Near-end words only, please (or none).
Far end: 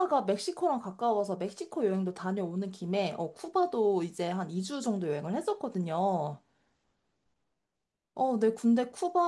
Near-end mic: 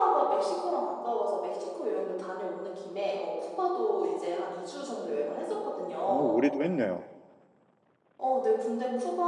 오, 올해도 했네요.